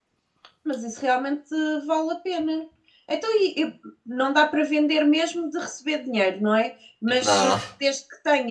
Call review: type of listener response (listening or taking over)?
listening